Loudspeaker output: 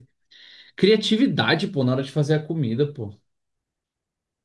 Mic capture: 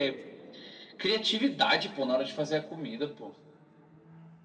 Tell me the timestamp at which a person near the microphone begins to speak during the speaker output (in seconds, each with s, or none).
none